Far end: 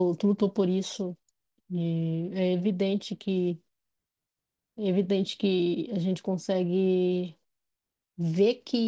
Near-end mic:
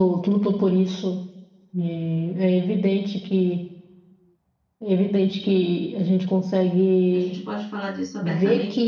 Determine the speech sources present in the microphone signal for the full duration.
both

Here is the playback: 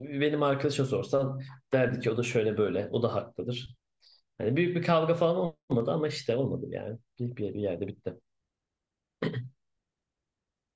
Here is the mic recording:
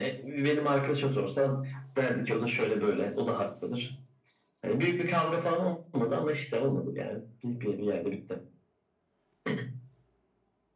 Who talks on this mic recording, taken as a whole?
echo only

